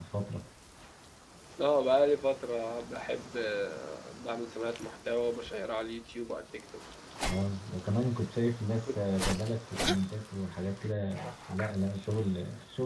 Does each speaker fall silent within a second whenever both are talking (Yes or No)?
Yes